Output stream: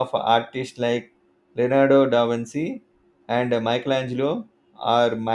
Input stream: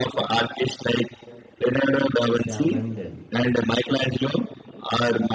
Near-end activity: present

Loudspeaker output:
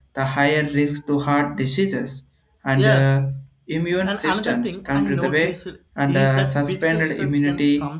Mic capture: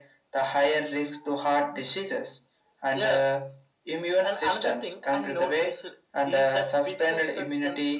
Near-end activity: none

